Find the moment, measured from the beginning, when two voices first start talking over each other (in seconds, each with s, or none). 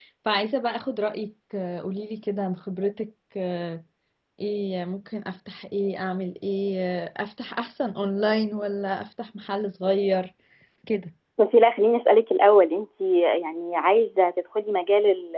none